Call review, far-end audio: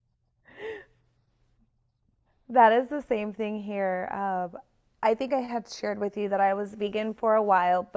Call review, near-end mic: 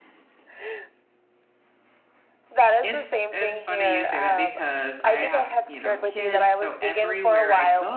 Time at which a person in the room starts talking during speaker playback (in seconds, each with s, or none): 2.8 s